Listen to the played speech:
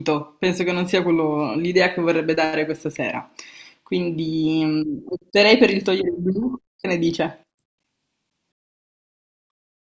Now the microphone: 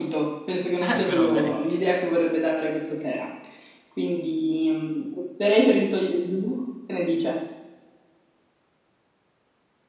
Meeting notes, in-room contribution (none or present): present